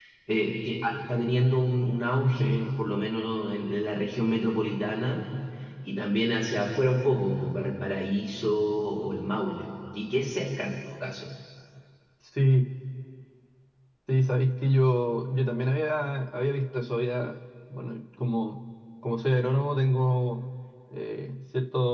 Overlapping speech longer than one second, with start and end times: none

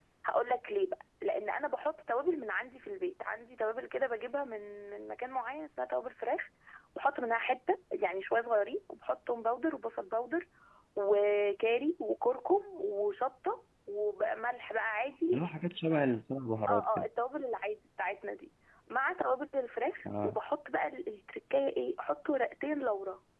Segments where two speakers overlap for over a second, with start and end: none

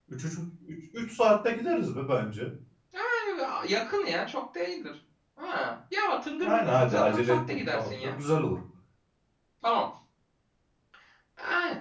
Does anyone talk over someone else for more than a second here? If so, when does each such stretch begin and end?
6.4-8.1

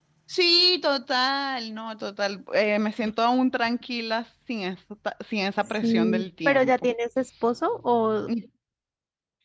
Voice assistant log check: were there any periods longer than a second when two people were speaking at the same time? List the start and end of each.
5.6-6.9

